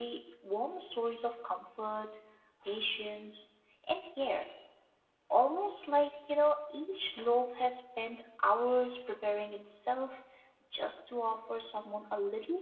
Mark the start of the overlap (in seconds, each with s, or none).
none